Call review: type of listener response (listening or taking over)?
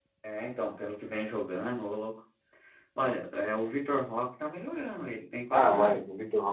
taking over